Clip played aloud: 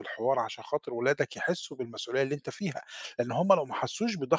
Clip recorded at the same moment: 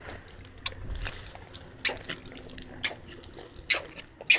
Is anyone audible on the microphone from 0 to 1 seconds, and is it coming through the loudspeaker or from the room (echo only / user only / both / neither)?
neither